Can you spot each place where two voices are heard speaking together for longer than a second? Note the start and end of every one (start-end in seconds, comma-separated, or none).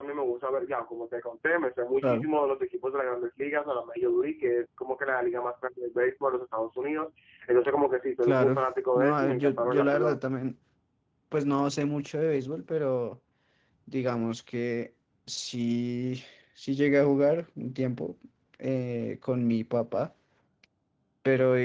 8.9-10.2